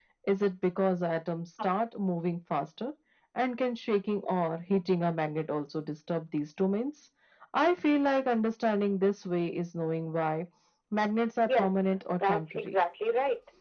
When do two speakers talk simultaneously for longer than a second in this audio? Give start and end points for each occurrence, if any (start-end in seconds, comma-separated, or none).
11.4-12.7